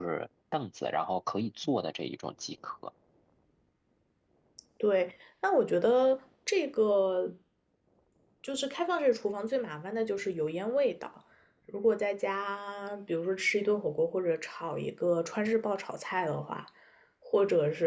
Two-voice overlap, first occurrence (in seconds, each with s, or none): none